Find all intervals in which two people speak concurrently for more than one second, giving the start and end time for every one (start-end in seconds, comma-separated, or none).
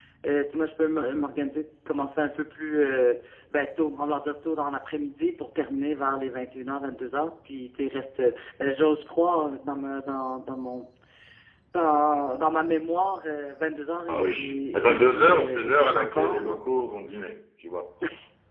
14.1-16.6